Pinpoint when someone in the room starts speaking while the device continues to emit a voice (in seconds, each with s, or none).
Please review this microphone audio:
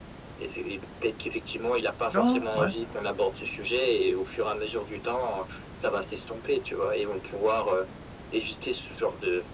2.1 s